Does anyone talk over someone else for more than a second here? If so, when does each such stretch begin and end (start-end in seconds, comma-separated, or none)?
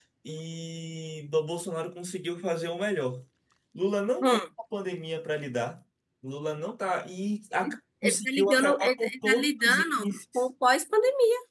7.5-10.5